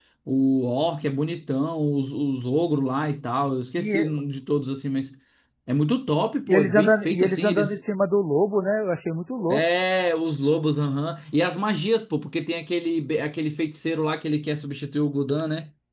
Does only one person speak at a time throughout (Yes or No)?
No